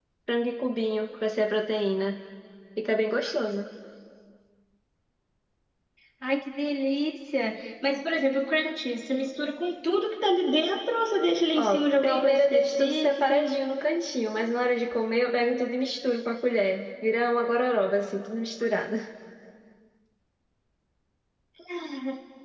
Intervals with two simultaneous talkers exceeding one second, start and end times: 11.6-13.3

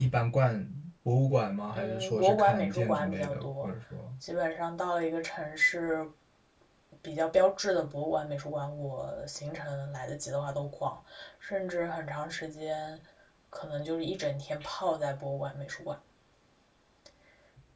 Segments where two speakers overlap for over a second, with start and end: 1.7-3.7

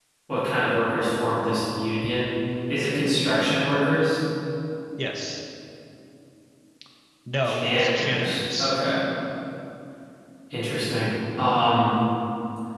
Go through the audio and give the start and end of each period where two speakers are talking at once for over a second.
7.4-8.8

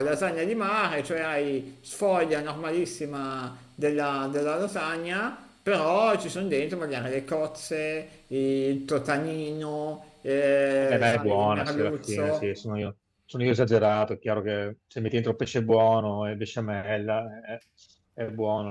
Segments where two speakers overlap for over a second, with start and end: 10.8-12.5

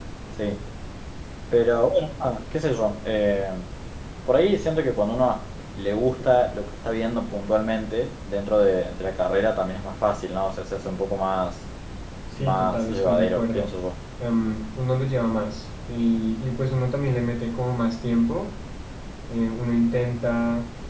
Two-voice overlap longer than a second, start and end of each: 12.4-13.7

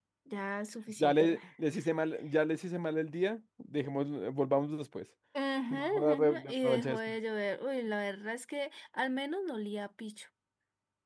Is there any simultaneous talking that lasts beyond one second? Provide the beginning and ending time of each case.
5.7-7.0

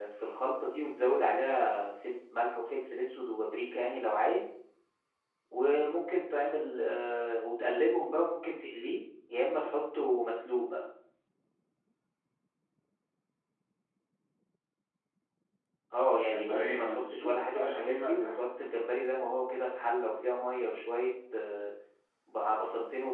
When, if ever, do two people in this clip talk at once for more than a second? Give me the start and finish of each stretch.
16.2-18.5

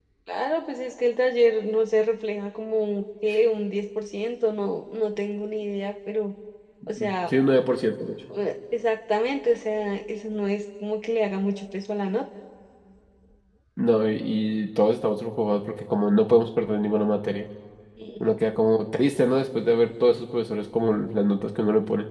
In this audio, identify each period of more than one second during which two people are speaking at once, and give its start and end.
none

